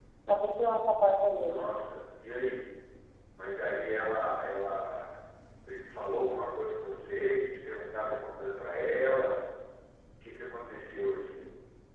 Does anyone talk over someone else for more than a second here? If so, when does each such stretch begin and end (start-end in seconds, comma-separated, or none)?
none